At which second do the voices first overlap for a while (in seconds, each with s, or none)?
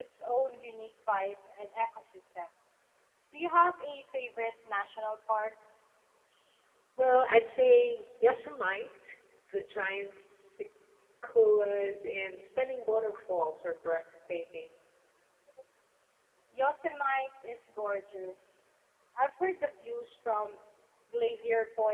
none